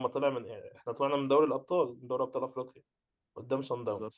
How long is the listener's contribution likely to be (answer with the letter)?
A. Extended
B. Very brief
B